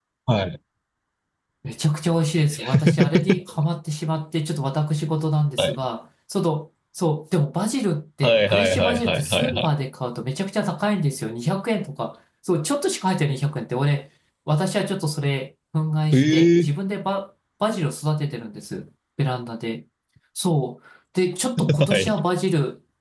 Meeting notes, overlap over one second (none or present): present